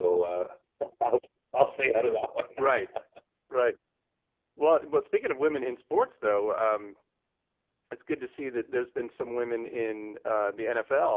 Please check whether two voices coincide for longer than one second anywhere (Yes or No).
No